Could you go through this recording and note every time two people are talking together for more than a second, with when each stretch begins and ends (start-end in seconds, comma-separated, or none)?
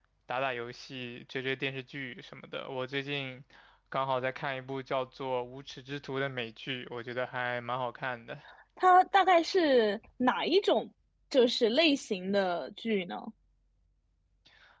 none